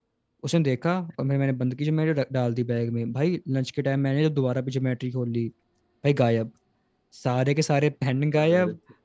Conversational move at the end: listening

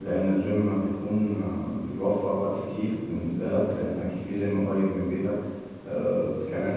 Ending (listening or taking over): listening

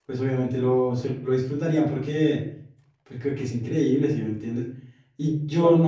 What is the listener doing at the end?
listening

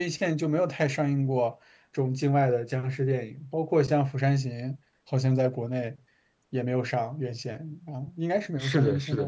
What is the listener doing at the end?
taking over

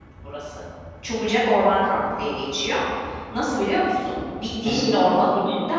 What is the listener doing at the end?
listening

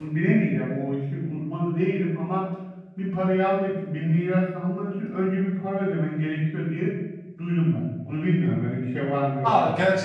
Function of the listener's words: taking over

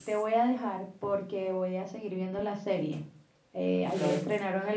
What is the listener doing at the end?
listening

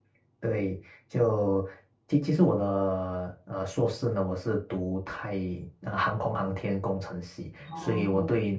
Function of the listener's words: listening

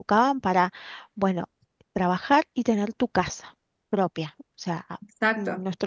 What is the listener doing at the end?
listening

